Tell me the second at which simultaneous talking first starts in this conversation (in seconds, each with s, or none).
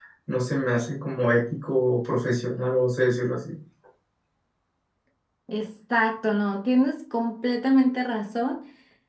none